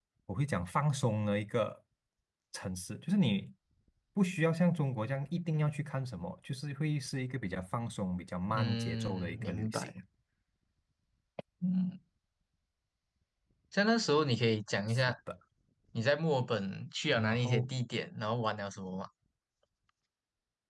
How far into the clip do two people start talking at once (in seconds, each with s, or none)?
8.5 s